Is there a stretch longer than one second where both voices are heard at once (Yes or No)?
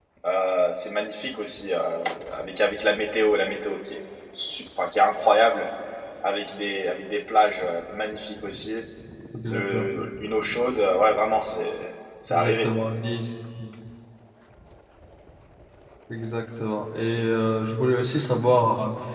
No